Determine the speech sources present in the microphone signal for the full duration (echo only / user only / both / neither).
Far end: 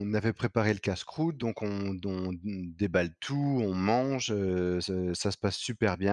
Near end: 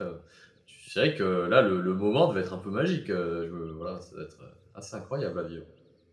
user only